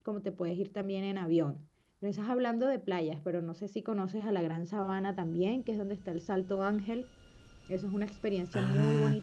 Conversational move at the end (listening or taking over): taking over